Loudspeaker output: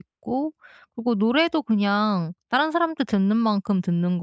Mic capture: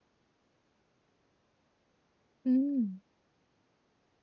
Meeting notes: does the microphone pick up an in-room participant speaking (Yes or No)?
Yes